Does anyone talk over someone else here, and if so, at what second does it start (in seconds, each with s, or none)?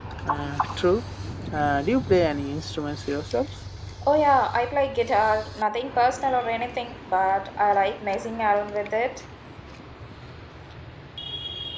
none